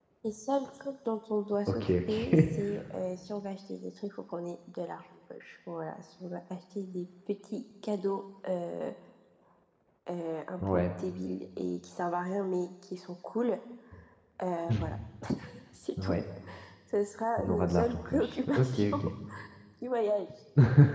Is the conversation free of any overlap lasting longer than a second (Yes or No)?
No